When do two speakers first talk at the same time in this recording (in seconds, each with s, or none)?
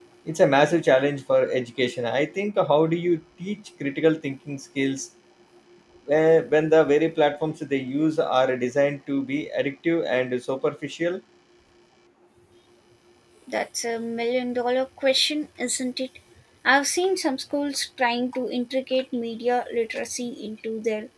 none